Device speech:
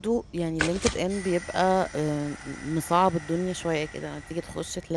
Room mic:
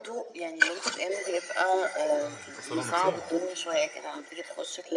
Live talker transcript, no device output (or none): آه بيتأثروا نفسيًا.